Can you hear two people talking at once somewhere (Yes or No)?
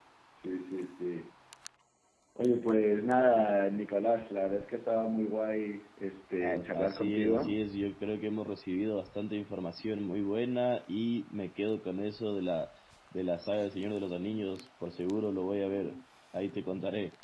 Yes